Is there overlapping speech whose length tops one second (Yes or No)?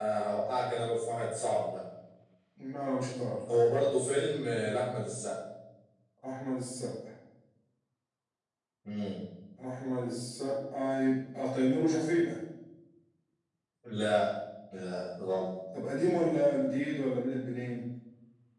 No